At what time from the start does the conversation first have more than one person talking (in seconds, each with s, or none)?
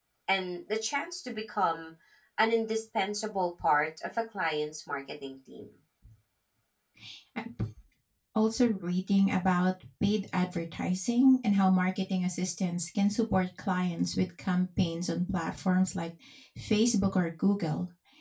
none